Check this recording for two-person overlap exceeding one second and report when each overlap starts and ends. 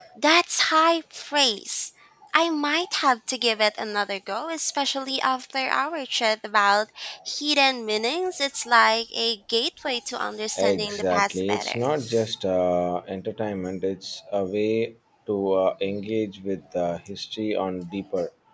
10.6-11.9

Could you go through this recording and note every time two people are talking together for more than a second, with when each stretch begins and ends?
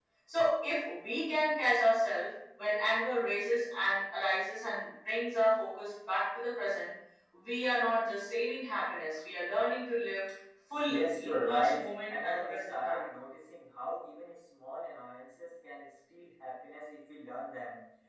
10.9-13.1

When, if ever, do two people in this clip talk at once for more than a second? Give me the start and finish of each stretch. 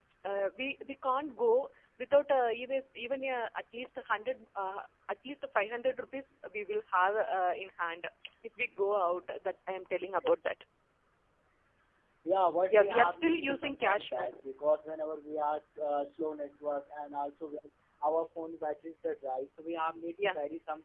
12.7-14.3

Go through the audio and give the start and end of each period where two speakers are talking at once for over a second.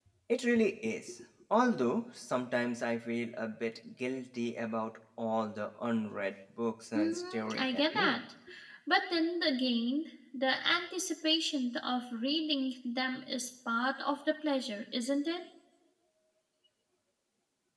7.0-8.2

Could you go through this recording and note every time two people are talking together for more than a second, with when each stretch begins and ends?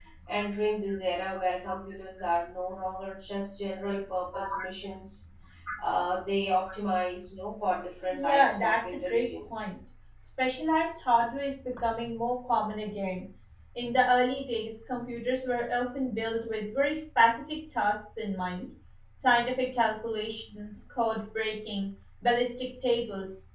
8.1-9.7

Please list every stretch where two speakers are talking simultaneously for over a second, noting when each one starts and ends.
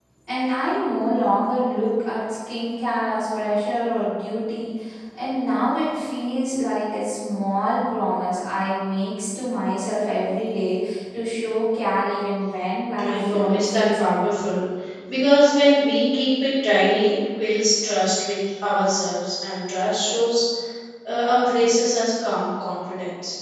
13.0-14.4

